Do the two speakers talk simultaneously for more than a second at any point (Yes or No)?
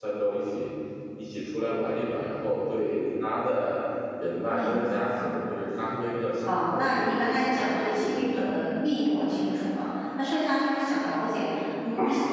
Yes